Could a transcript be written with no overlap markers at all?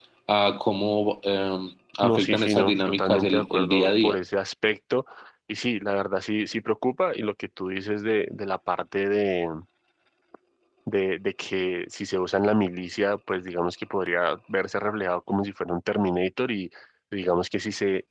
No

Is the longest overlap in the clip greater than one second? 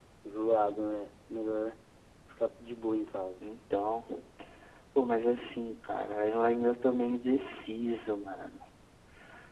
No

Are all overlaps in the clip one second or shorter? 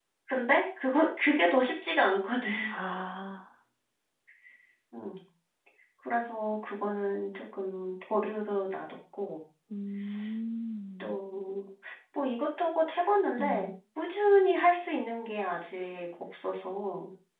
Yes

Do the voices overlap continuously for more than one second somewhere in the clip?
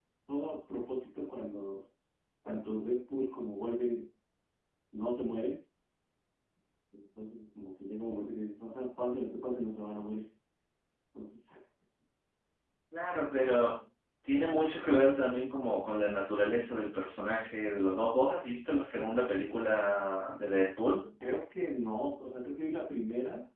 No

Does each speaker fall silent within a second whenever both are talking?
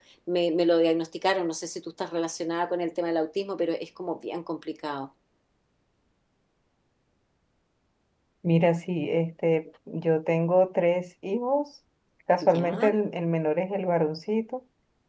Yes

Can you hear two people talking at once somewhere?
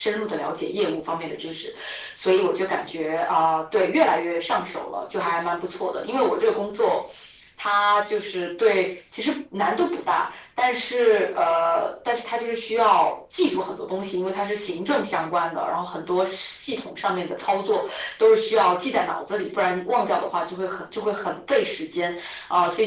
No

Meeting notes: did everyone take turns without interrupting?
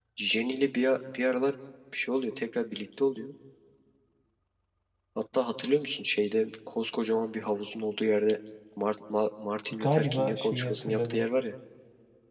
No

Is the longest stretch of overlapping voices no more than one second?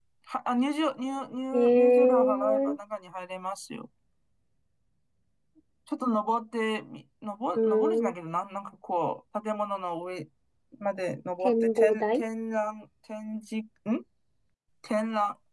No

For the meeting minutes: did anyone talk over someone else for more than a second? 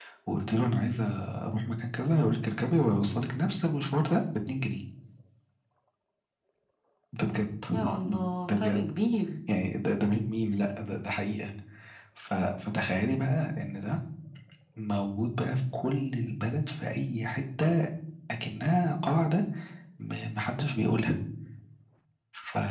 No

